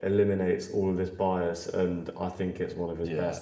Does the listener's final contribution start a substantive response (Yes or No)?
Yes